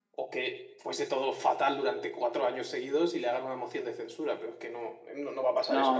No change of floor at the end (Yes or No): No